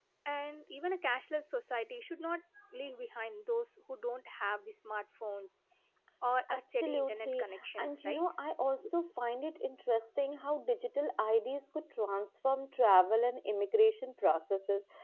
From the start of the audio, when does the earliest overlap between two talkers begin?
6.5 s

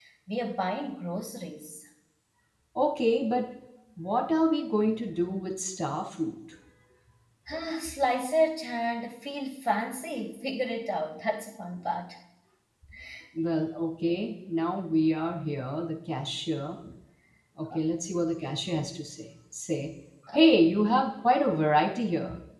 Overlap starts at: none

